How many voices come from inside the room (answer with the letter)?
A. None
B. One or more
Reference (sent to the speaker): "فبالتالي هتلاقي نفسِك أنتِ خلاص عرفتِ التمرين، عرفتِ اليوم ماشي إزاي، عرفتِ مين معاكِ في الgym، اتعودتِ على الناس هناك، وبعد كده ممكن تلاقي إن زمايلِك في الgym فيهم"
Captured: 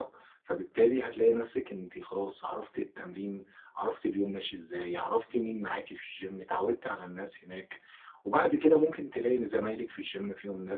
A